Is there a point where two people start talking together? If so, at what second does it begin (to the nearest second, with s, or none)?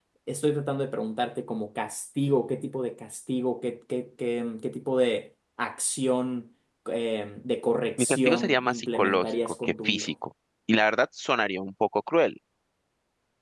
8 s